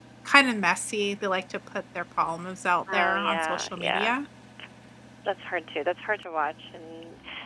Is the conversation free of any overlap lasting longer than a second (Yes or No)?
No